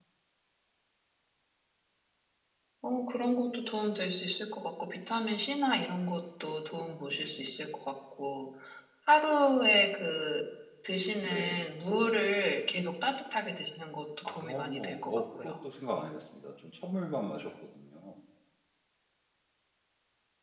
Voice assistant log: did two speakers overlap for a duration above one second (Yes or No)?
Yes